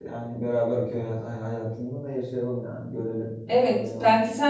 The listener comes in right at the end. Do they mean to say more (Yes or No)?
Yes